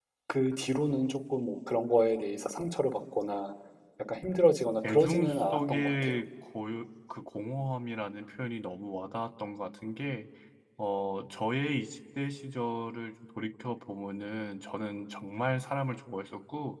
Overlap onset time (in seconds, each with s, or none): 4.9 s